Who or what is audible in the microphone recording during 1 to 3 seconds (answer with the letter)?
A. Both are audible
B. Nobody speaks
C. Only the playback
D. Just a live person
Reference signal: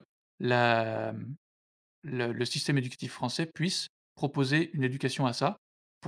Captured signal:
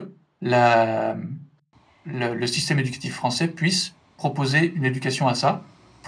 C